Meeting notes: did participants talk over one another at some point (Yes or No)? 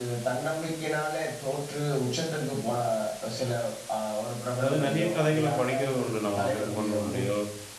Yes